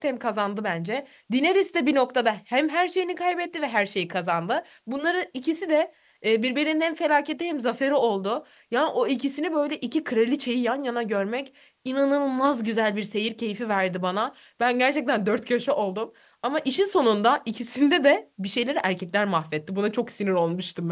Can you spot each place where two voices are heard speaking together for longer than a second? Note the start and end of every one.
none

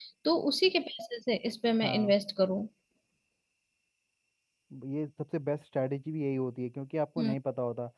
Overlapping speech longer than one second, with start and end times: none

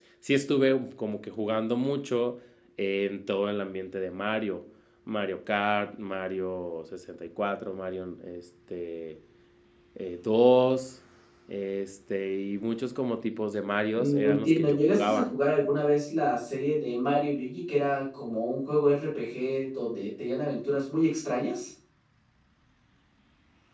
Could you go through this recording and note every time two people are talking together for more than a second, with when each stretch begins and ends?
14.0-15.2

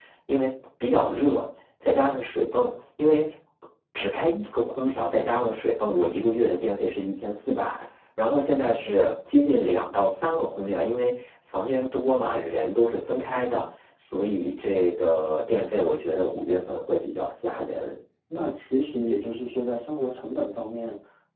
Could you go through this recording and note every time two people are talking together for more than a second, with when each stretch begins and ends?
none

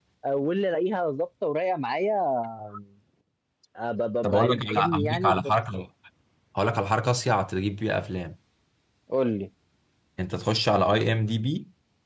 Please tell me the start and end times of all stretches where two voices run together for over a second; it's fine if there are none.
4.2-5.5

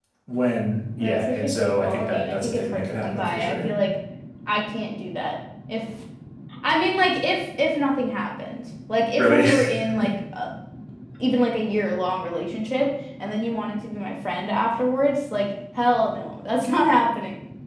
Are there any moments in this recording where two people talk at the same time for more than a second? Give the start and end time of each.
1.0-3.7

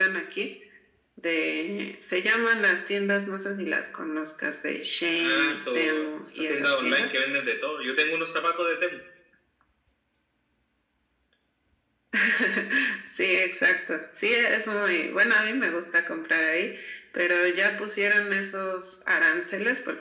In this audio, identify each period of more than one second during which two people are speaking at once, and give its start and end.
5.2-7.1

